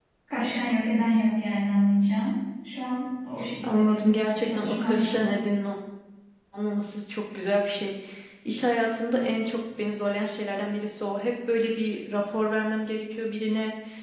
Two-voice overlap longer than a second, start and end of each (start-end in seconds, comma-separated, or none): 3.6-5.4